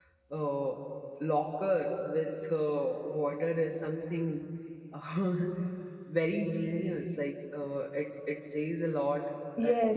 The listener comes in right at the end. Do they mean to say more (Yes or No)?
Yes